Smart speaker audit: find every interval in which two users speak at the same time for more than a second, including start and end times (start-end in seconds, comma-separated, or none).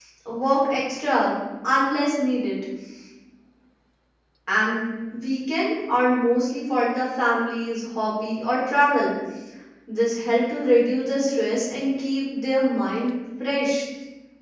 none